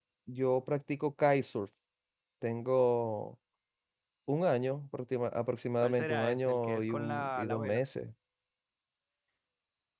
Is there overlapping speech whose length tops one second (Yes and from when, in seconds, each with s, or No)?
Yes, from 5.8 s